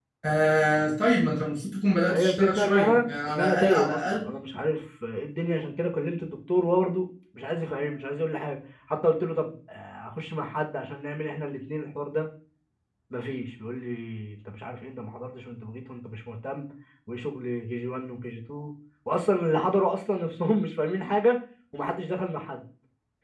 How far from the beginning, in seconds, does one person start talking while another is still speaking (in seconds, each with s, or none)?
2.1 s